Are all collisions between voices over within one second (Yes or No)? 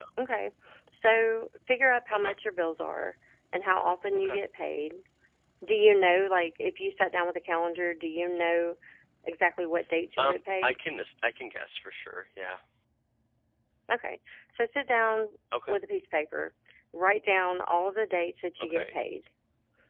Yes